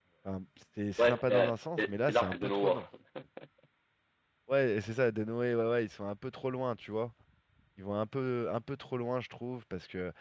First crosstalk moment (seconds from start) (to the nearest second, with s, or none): 1 s